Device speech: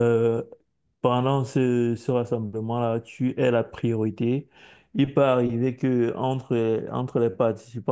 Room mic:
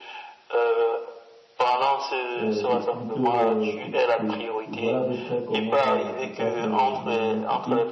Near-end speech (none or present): present